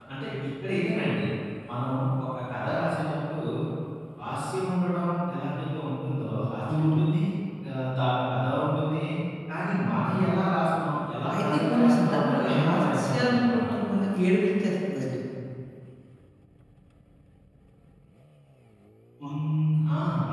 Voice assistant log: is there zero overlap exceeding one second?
No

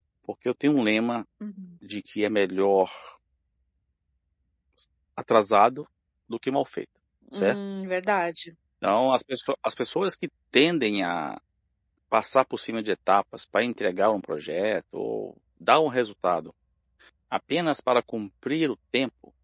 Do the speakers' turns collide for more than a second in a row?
No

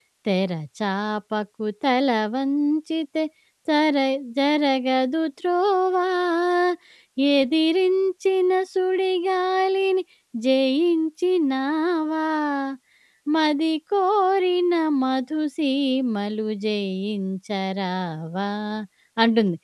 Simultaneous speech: No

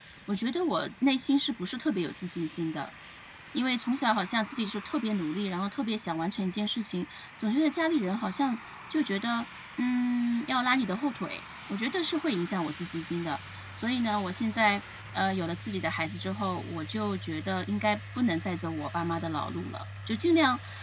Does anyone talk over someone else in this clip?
No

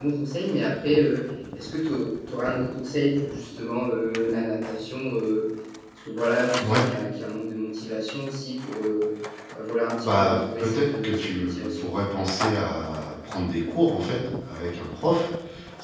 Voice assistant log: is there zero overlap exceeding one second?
No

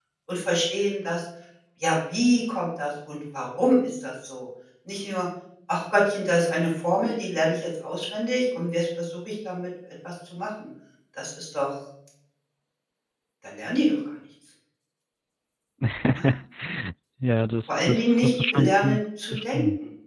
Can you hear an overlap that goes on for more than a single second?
Yes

